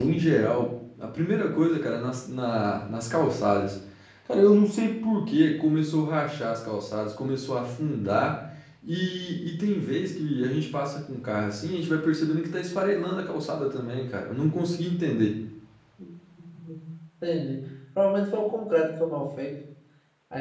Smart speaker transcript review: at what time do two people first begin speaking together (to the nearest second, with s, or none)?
none